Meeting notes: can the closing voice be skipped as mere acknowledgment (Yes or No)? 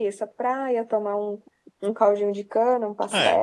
No